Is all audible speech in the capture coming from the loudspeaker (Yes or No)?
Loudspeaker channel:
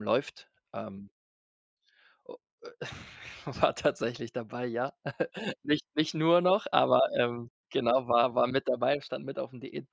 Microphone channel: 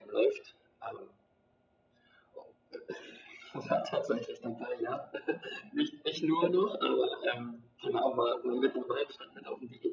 Yes